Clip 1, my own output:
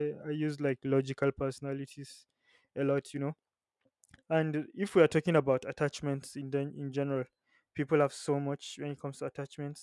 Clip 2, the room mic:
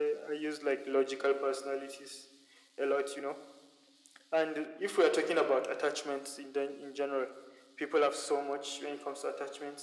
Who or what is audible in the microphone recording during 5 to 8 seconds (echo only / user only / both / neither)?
echo only